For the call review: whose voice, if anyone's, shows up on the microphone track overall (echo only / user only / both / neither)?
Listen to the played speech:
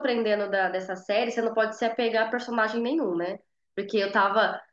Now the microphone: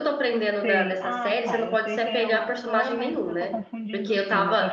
both